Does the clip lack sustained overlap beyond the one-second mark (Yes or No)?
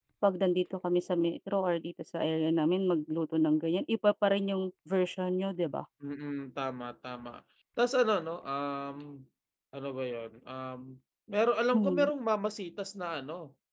Yes